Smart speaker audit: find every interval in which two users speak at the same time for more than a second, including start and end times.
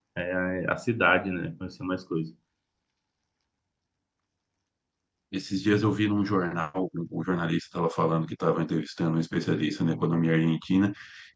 none

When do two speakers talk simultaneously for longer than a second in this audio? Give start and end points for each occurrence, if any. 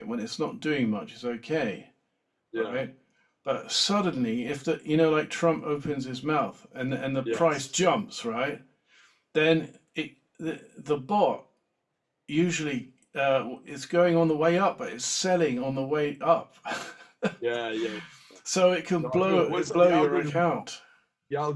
19.0-20.6

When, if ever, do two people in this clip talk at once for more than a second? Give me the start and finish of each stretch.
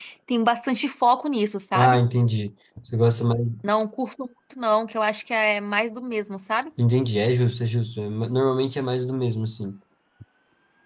none

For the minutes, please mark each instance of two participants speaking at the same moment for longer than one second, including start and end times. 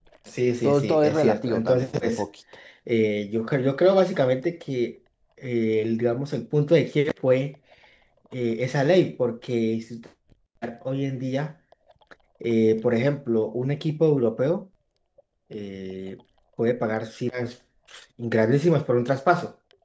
0.6-2.2

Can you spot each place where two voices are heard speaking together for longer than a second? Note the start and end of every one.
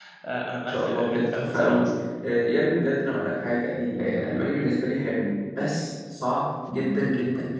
0.6-1.9

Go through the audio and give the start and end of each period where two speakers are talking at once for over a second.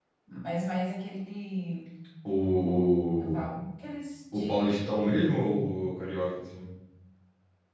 4.3-5.7

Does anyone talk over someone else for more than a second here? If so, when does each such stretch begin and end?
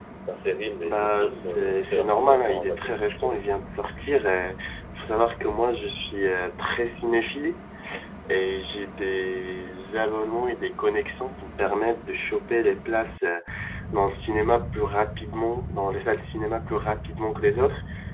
0.8-3.5

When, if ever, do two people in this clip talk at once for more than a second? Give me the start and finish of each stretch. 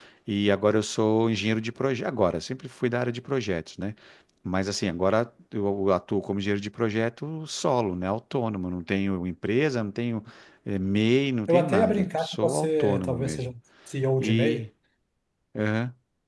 11.5-13.5

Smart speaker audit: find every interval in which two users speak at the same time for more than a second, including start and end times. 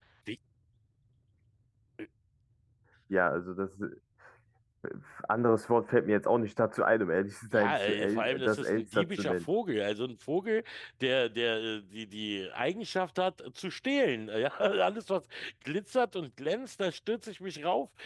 7.5-9.5

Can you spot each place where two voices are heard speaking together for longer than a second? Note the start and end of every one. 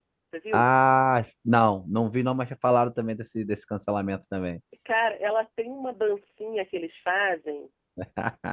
none

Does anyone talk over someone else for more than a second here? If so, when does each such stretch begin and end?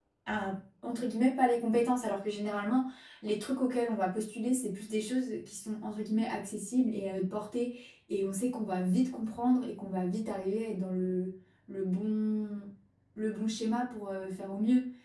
none

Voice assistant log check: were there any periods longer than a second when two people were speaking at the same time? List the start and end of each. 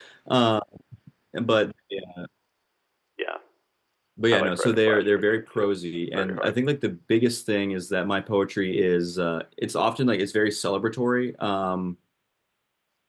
4.3-5.7

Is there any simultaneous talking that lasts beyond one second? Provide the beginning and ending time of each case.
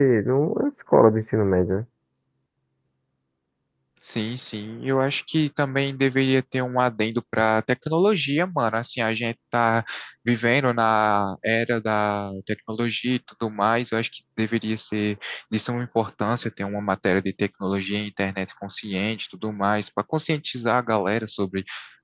none

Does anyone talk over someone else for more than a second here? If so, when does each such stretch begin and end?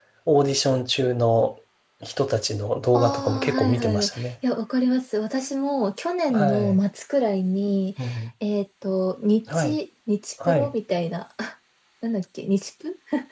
2.9-4.3

